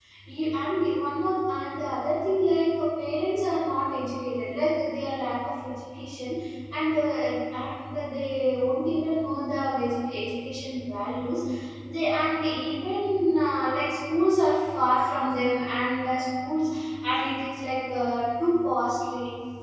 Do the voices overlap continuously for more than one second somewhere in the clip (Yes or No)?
No